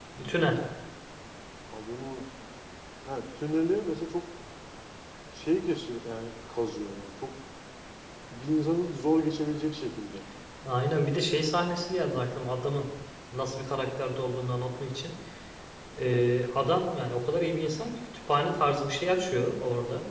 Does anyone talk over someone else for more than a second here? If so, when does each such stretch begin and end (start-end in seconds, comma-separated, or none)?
none